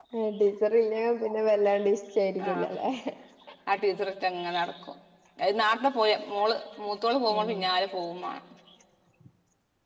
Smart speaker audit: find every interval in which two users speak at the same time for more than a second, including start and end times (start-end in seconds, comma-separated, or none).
none